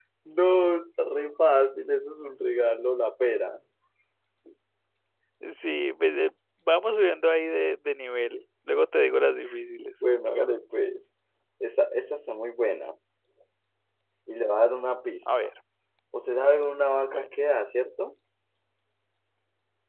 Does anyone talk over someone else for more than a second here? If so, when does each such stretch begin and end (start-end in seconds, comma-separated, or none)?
none